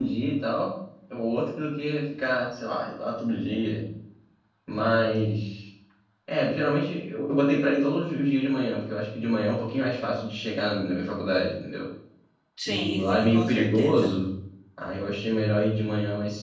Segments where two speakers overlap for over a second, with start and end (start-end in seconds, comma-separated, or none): 12.7-14.1